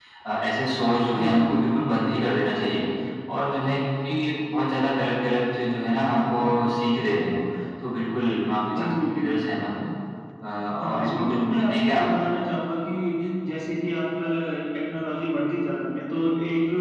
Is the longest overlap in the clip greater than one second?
Yes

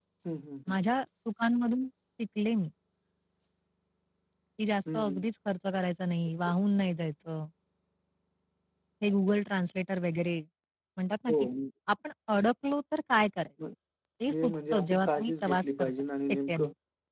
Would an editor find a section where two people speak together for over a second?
Yes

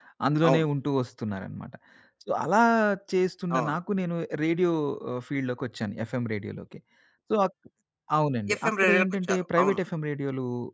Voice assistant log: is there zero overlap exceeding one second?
No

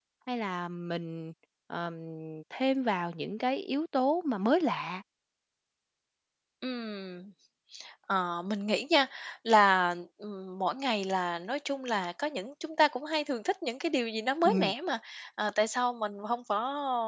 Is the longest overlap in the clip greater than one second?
No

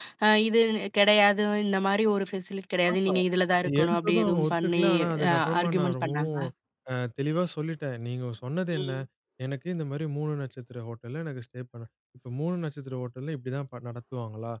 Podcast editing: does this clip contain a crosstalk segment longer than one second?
Yes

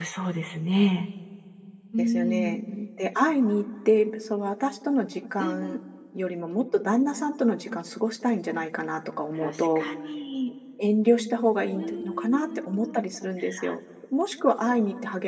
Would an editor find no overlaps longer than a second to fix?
No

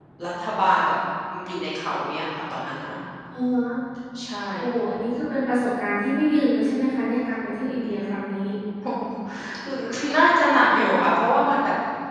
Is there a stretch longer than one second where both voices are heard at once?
No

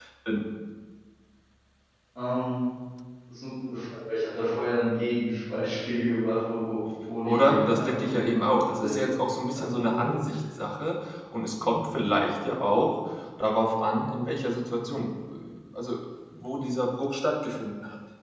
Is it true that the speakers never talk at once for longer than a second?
No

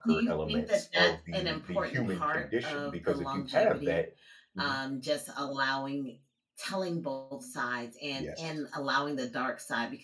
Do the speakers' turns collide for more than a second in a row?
Yes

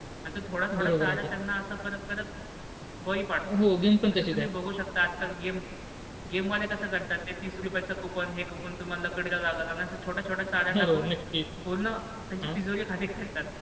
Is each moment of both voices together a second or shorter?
Yes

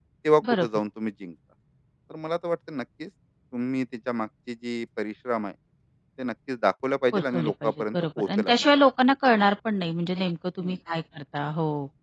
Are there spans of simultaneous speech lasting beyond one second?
Yes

